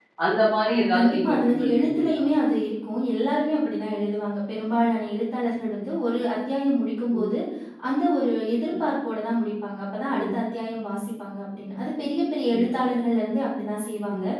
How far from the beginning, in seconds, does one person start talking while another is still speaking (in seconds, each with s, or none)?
0.7 s